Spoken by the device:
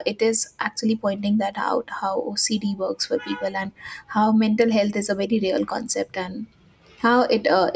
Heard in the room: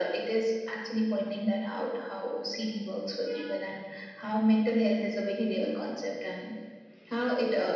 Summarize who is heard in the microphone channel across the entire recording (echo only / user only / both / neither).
echo only